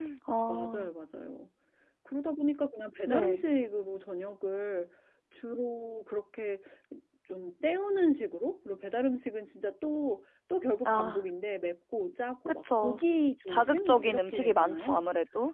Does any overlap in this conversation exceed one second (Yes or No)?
Yes